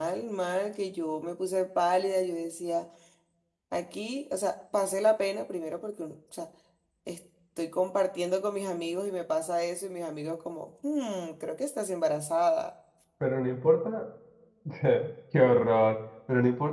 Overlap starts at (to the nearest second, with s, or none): none